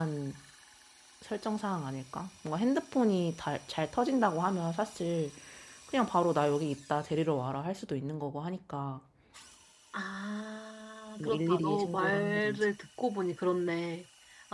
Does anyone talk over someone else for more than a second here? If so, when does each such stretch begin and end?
11.2-12.7

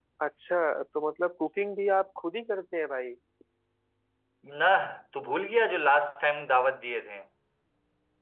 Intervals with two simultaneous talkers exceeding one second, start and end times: none

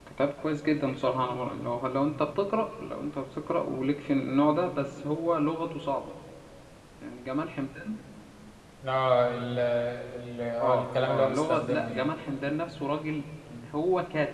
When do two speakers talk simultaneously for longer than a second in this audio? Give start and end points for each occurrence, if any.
10.6-12.1

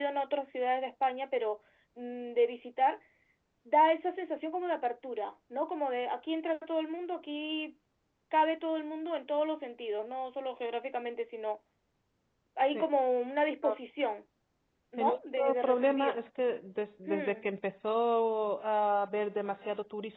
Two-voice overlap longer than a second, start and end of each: 15.0-16.2

